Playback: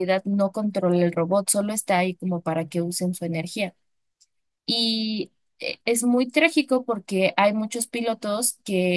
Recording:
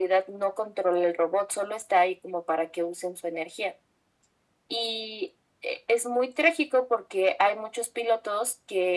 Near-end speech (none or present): none